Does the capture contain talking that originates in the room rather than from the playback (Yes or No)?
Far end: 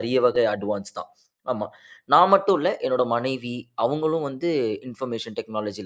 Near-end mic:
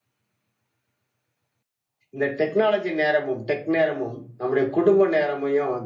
Yes